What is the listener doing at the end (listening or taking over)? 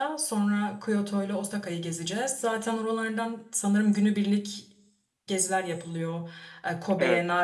listening